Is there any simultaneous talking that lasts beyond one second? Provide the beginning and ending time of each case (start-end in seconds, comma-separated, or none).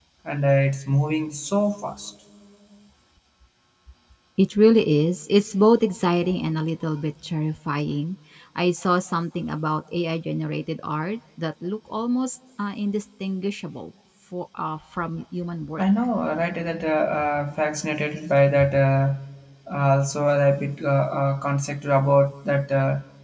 none